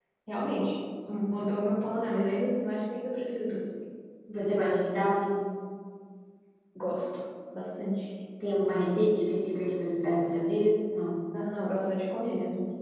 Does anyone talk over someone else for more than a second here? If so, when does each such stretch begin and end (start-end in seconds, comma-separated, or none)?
none